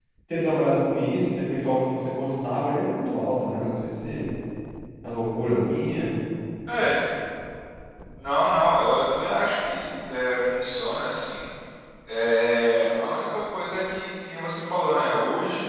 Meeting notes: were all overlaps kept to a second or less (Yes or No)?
Yes